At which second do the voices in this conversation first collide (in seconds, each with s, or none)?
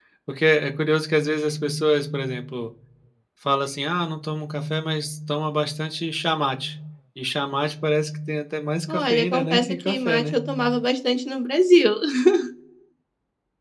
8.9 s